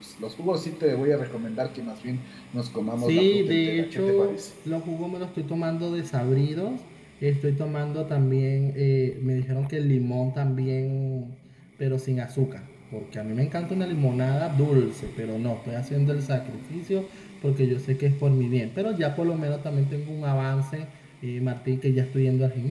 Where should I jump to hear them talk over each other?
3 s

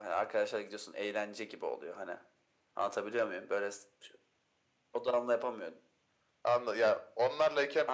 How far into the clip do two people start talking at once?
none

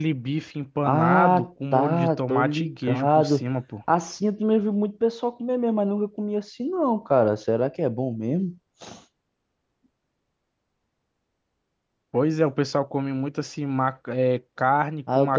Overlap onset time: 1 s

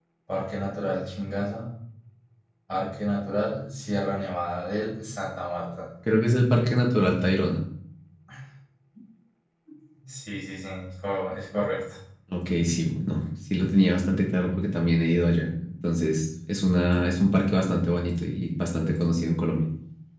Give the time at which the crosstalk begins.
none

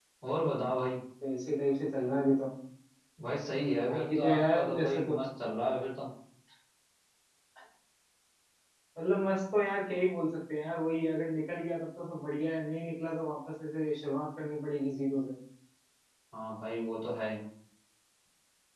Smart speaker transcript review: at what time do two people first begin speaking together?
4 s

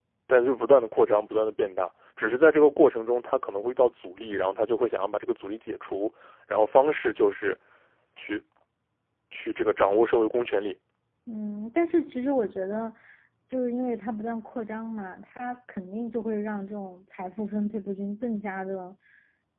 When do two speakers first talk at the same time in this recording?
none

